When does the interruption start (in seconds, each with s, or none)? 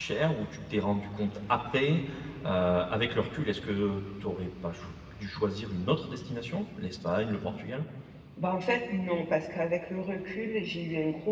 none